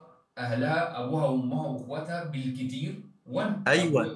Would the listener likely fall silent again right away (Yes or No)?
No